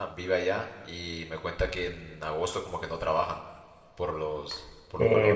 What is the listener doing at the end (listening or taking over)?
taking over